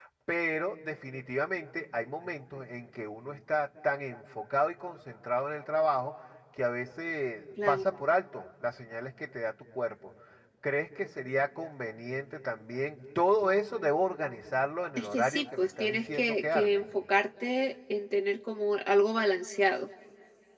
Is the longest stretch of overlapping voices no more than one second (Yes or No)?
No